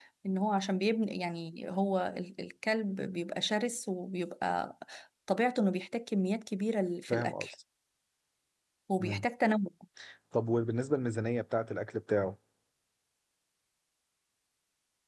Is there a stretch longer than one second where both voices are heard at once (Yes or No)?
No